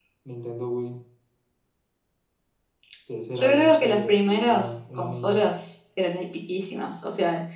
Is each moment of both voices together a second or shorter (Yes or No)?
No